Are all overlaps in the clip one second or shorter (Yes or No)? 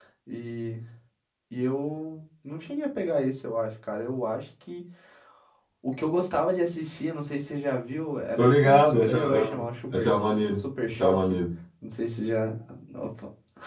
No